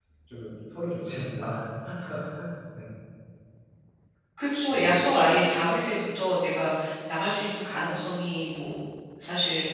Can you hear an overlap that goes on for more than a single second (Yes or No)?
No